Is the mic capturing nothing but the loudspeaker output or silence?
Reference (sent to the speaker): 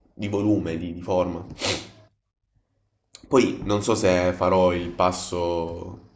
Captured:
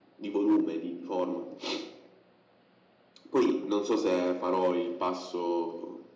Yes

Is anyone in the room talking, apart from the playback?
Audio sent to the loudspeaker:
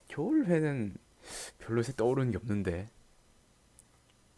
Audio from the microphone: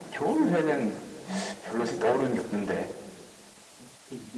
Yes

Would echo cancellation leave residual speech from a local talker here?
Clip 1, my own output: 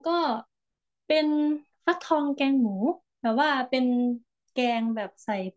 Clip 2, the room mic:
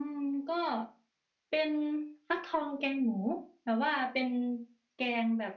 No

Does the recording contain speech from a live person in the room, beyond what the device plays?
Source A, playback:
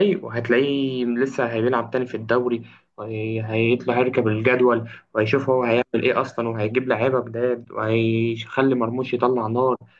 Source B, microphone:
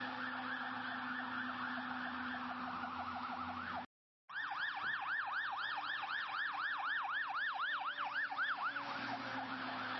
No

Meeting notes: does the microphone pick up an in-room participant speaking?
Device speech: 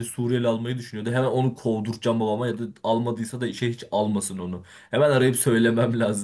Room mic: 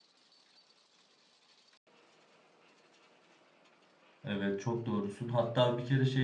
Yes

